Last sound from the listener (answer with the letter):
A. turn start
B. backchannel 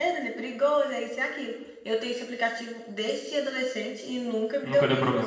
A